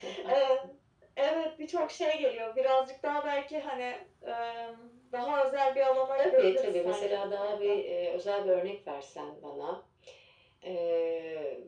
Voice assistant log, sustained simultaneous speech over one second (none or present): present